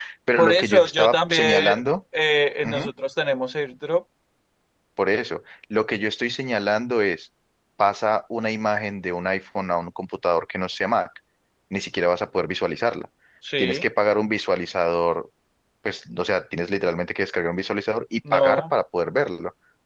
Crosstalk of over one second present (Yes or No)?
Yes